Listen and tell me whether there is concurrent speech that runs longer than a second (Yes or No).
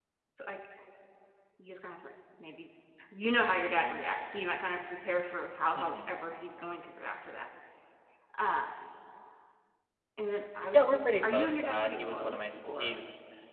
Yes